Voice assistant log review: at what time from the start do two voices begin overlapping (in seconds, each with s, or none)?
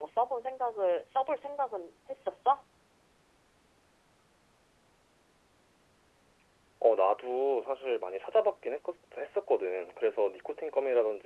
none